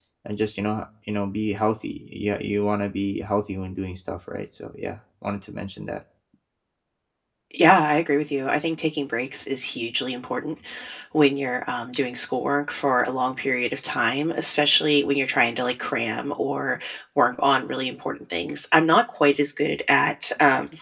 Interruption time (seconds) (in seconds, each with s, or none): none